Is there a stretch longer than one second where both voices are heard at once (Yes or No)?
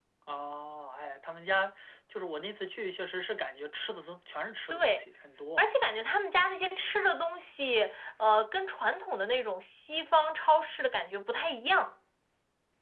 No